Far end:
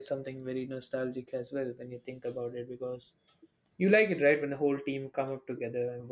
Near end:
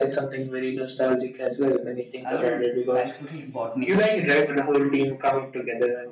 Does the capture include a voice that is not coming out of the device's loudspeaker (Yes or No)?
Yes